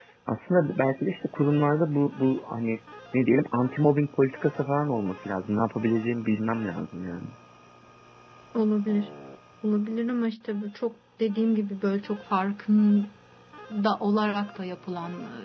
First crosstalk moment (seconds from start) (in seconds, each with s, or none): none